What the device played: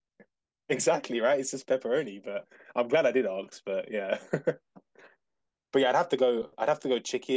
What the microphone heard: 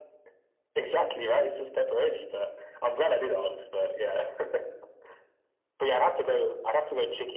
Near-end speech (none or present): none